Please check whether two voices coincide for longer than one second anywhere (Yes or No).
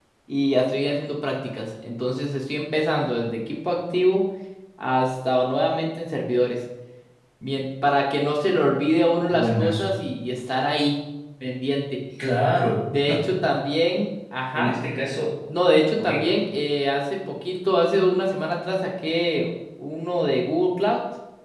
No